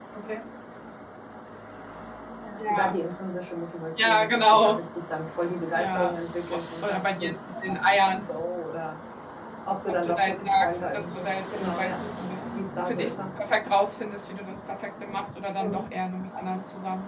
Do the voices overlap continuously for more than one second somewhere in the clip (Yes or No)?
Yes